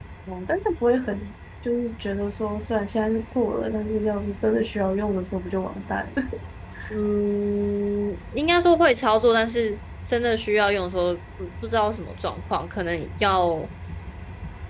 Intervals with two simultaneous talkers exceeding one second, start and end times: none

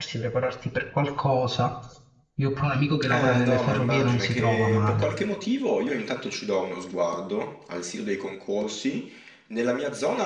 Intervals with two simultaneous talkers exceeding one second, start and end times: 3.1-5.1

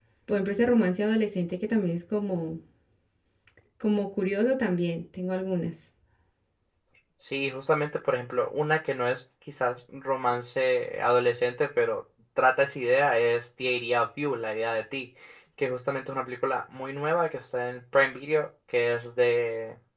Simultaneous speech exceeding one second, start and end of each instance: none

